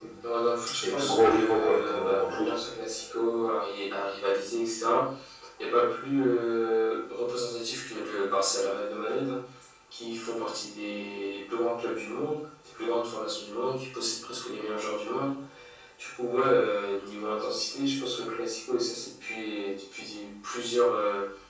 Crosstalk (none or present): present